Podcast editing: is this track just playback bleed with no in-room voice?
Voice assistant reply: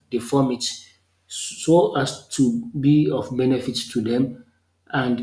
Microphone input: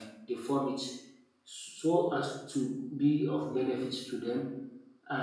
Yes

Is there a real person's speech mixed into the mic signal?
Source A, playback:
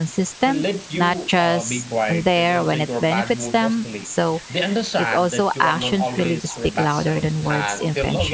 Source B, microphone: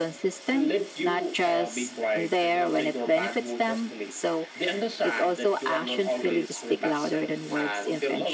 No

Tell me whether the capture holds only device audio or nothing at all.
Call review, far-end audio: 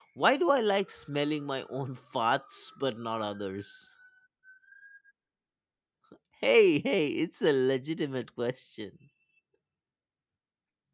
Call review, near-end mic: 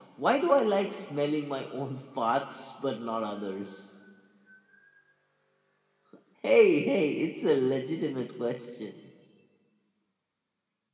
Yes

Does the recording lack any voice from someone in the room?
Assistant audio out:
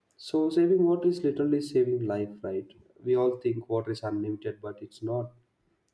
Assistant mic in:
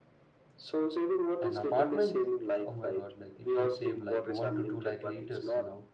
No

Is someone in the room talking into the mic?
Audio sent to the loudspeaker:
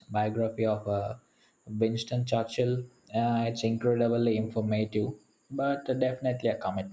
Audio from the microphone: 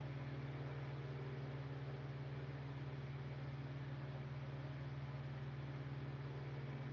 No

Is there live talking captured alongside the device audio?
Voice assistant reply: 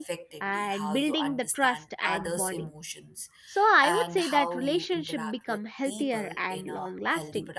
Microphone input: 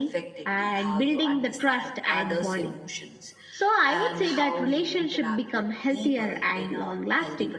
No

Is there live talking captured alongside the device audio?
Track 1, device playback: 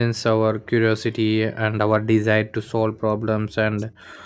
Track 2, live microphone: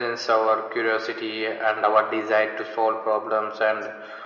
No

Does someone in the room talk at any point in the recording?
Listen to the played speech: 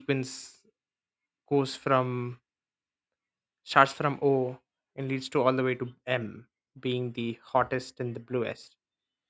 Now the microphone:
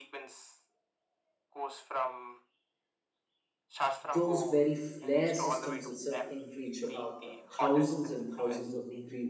Yes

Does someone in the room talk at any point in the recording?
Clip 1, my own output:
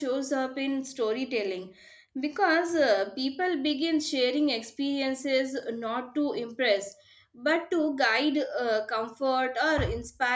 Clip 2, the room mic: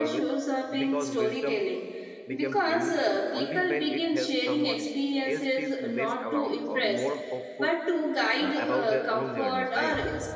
Yes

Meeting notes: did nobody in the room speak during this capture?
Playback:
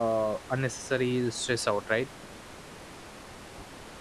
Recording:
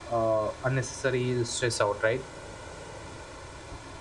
Yes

